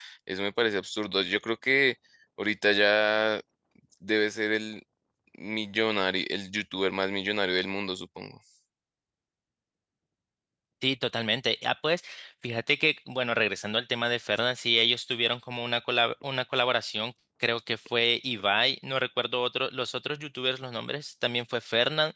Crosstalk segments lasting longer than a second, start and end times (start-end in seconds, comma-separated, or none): none